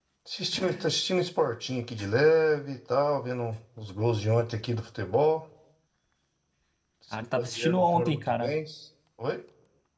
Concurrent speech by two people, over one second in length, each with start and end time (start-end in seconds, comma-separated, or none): 7.3-8.5